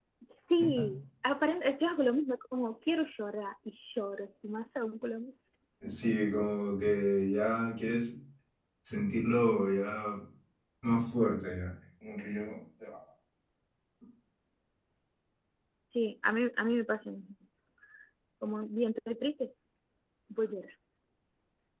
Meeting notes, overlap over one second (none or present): none